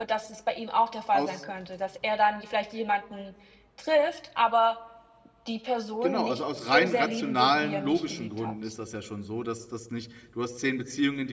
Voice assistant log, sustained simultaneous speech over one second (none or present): present